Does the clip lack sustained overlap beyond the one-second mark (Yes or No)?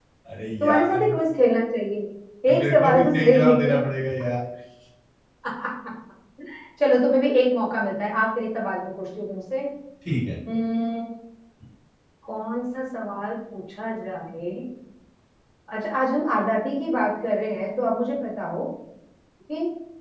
No